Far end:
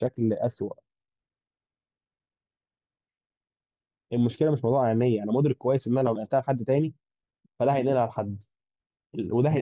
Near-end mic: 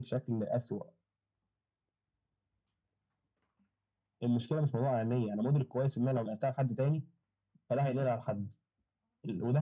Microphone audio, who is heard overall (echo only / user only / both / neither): echo only